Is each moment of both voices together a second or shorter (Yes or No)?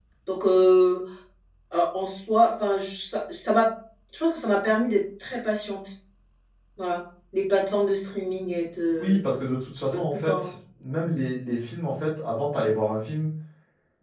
Yes